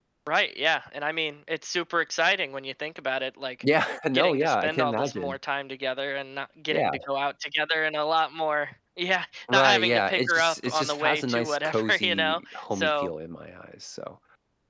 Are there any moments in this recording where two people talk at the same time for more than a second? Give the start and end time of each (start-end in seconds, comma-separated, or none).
4.1-5.4, 9.5-13.1